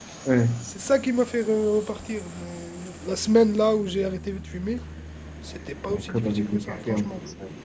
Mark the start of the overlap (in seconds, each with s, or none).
5.9 s